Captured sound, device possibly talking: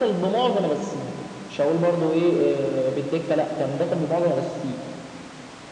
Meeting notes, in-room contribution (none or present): none